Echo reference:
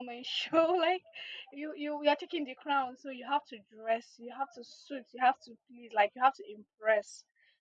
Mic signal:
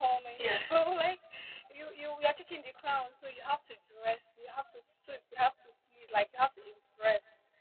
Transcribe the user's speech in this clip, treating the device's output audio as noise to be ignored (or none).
Yes.